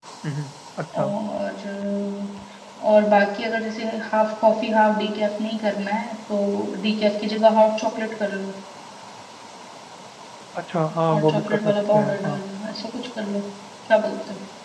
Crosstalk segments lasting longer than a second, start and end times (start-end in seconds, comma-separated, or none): 11.1-12.4